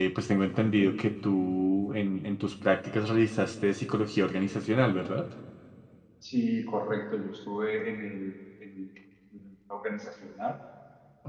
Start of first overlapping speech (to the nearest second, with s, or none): none